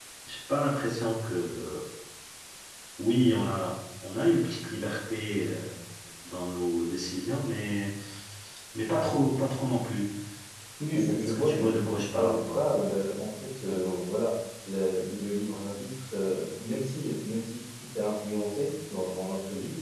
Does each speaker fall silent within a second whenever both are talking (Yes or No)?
No